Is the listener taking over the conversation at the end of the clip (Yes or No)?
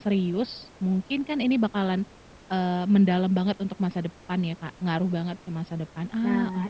Yes